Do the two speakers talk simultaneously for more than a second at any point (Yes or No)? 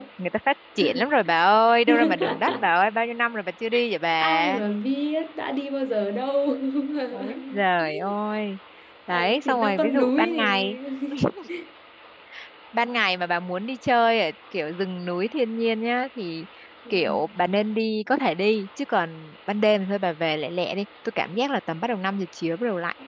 Yes